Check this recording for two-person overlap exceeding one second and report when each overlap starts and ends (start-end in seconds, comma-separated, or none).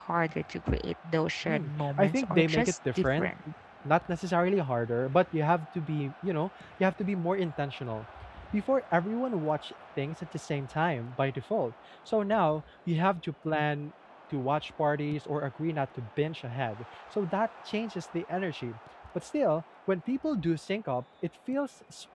1.4-3.3